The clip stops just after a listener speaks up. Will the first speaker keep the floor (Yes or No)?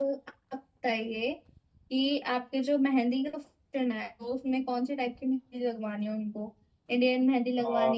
Yes